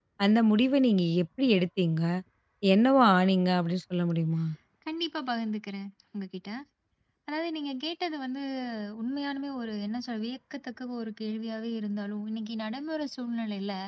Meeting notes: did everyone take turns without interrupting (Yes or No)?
Yes